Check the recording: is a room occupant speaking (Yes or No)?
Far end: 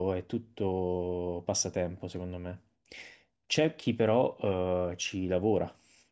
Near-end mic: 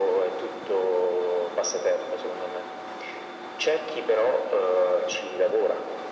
No